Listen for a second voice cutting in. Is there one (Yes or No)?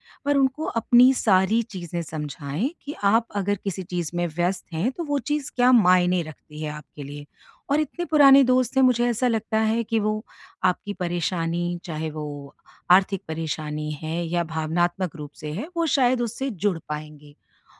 No